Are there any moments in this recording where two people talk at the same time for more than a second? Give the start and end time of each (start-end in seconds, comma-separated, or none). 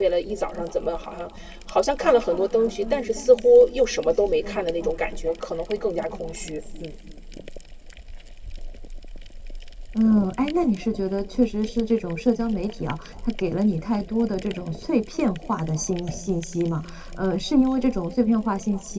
none